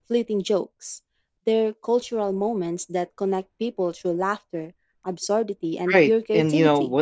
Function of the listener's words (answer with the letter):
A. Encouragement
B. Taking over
B